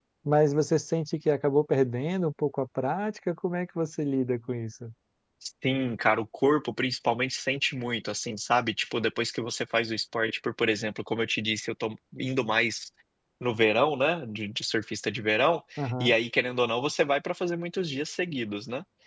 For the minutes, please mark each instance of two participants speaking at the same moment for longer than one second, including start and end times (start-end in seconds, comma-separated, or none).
none